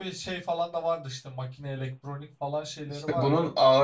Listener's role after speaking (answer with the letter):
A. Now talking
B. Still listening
A